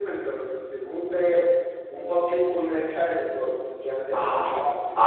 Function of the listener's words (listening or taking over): taking over